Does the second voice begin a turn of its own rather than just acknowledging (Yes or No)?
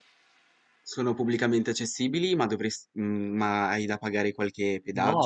Yes